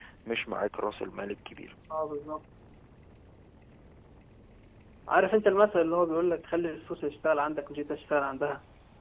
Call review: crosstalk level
none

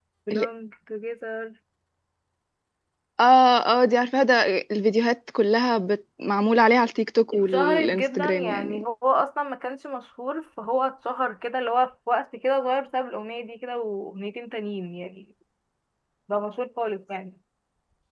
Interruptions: present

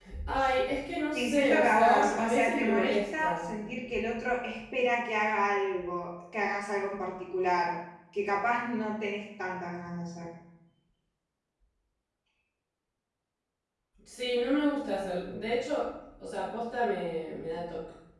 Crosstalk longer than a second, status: present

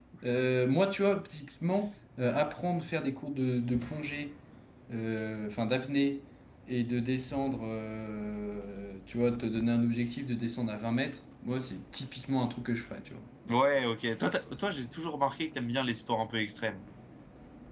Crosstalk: none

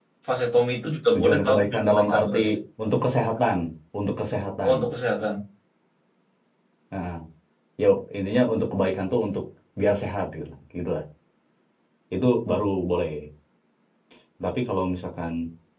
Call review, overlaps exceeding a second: present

